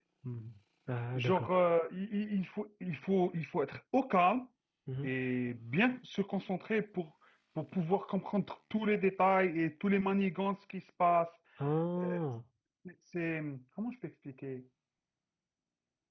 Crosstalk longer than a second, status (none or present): none